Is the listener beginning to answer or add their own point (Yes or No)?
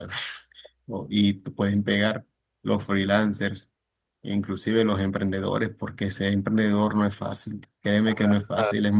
No